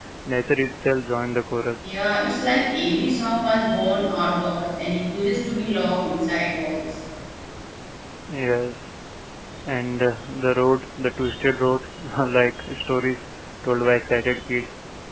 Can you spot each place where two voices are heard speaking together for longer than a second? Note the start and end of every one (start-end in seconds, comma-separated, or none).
none